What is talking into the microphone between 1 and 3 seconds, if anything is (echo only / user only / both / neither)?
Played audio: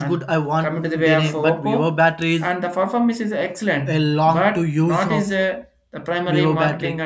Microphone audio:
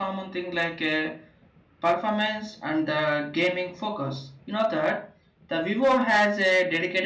user only